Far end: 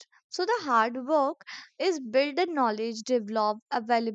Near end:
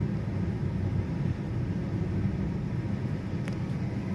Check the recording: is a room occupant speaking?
No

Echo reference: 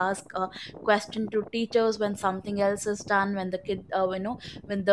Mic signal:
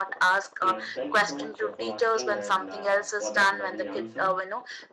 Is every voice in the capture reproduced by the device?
No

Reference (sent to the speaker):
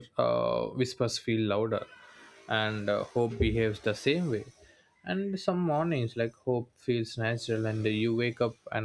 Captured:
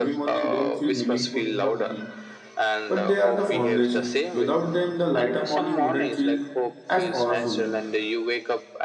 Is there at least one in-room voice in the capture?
Yes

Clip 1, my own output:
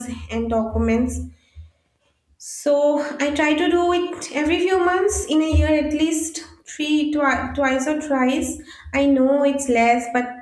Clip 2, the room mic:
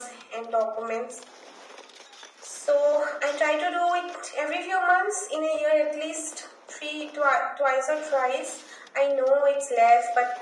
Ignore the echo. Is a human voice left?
No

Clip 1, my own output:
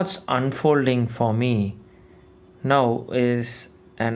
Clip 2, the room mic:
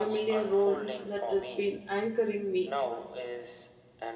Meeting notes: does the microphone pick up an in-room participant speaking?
Yes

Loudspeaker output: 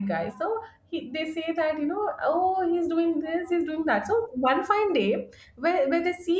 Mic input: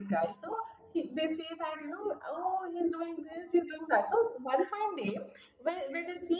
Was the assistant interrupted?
No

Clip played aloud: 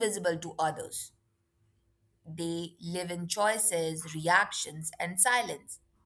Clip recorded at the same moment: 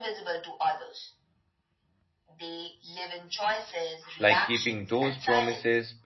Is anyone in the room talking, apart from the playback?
Yes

